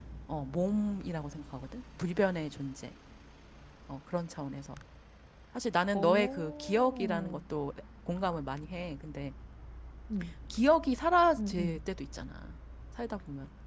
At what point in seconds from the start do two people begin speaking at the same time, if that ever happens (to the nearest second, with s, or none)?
6 s